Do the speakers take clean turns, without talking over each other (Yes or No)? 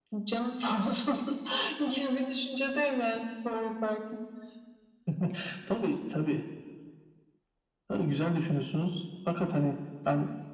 Yes